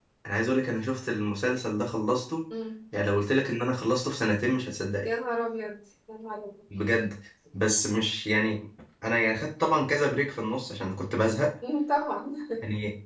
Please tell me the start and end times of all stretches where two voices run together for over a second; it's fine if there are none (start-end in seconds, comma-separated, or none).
none